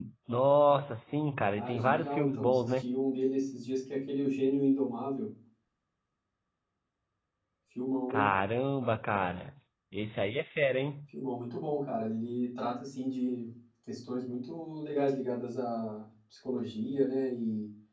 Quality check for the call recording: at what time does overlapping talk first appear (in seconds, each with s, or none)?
1.6 s